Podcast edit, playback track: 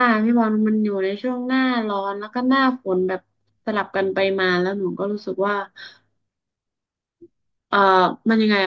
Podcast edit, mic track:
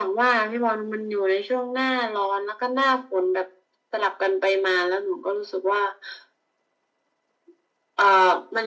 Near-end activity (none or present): none